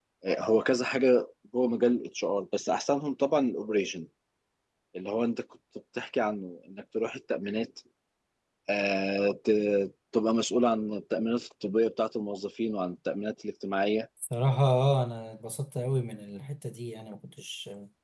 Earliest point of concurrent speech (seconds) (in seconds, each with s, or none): none